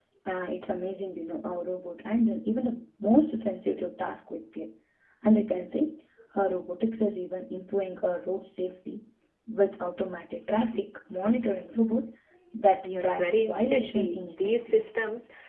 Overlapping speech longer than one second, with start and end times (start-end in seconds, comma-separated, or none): 13.0-14.8